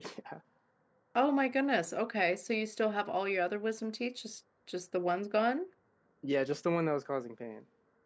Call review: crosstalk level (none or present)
none